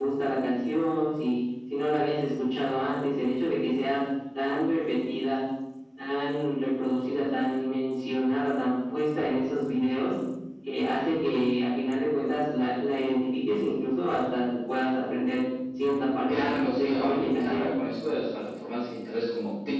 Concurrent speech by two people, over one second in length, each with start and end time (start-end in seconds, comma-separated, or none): 16.3-17.6